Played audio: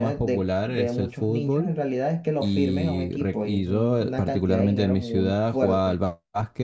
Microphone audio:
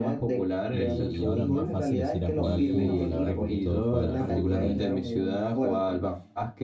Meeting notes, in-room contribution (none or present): present